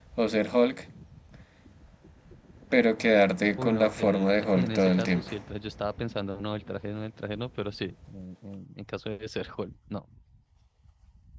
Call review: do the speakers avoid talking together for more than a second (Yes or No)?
No